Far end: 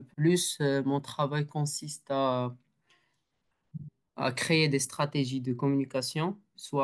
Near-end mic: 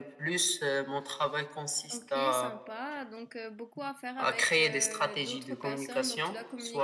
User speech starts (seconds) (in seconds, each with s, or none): 1.9 s